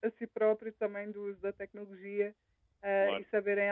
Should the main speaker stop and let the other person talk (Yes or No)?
No